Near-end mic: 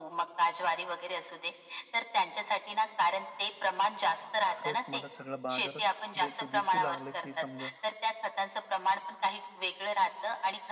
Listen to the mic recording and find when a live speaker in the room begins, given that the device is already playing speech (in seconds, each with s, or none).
4.5 s